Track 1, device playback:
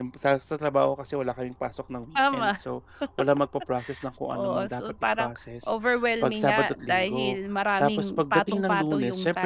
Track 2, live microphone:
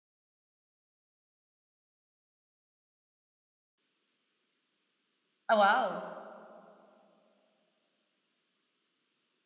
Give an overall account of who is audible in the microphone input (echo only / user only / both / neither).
user only